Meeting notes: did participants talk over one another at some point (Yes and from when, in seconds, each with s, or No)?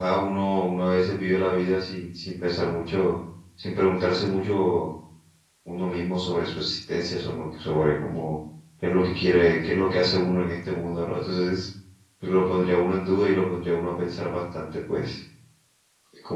No